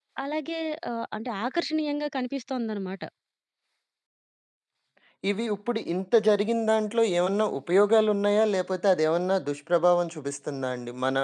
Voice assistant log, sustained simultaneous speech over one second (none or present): none